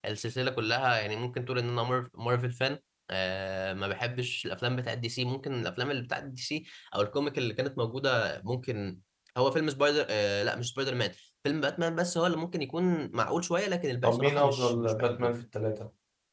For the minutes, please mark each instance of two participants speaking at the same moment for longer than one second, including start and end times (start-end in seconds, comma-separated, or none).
14.0-15.3